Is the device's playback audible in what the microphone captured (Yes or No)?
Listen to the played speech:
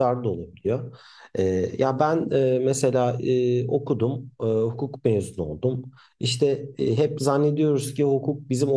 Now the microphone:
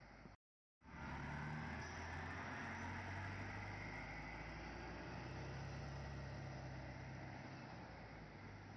No